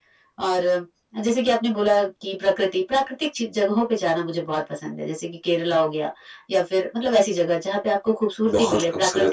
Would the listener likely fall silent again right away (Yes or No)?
No